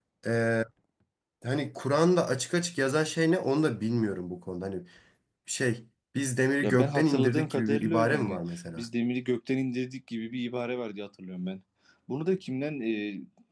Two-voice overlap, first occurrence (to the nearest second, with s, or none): 7 s